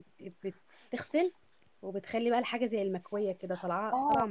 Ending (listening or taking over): taking over